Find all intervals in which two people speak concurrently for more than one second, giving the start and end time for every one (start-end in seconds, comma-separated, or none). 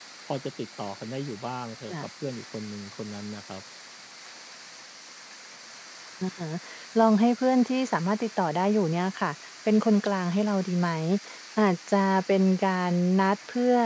none